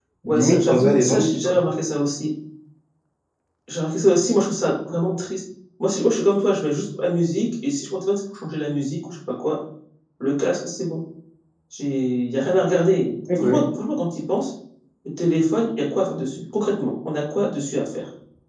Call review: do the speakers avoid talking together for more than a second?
No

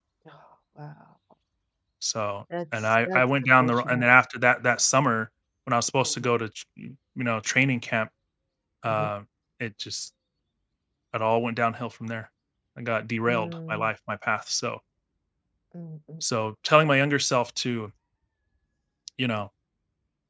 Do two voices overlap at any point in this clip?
Yes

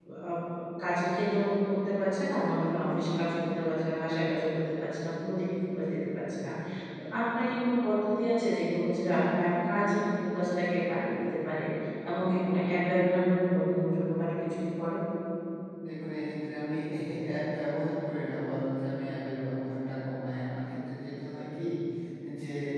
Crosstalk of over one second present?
No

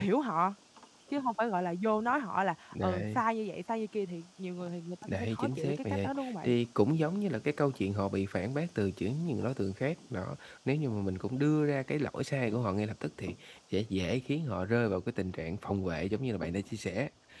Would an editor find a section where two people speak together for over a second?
Yes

